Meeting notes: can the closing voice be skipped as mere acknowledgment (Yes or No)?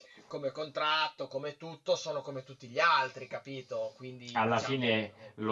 No